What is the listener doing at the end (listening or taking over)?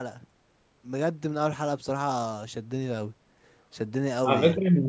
taking over